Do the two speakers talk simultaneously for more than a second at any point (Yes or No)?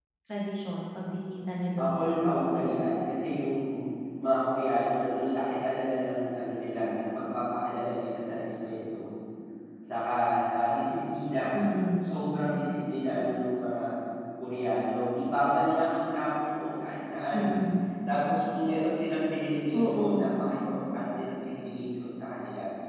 Yes